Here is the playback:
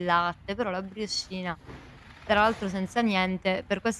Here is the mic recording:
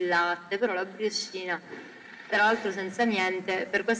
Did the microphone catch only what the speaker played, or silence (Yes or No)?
Yes